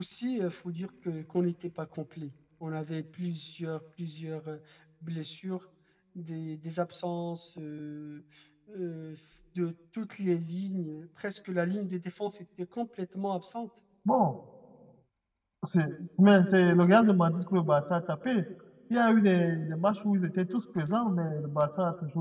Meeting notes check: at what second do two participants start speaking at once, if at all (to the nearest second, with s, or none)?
none